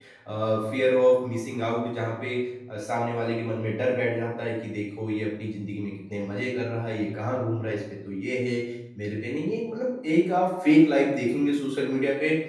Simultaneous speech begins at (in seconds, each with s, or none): none